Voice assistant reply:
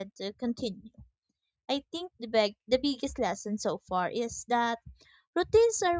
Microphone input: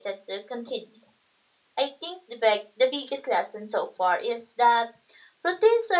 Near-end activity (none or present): none